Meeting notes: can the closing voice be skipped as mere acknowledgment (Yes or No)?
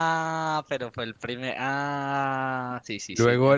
No